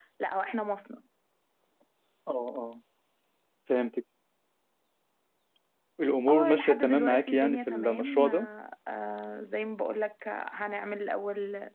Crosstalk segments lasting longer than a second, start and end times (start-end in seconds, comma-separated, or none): 6.3-8.5